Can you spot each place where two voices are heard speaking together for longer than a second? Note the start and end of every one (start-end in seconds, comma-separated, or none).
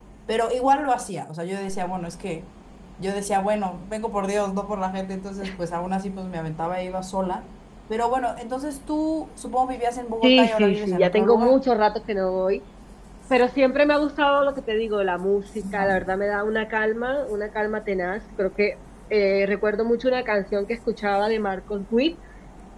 10.2-11.6